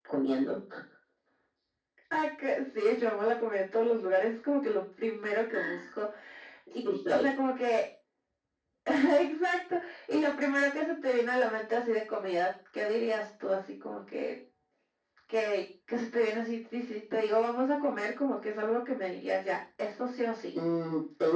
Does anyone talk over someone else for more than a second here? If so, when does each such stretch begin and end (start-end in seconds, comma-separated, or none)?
none